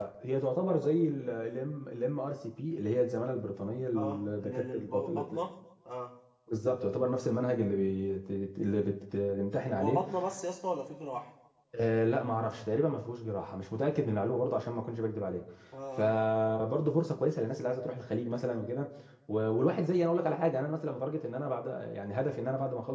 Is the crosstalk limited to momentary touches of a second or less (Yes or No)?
No